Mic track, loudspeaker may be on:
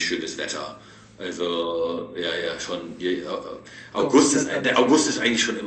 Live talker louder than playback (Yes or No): No